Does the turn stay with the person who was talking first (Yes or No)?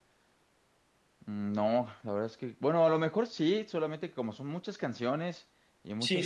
Yes